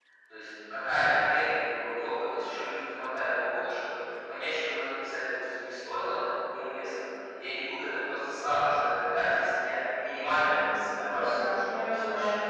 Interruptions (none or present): present